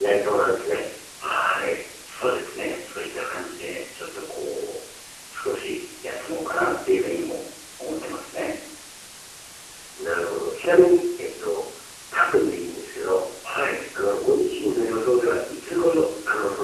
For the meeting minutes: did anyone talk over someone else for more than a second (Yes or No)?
No